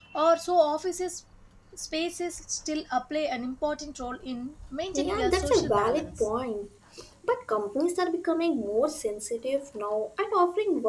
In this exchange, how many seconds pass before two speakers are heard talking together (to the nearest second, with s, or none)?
5 s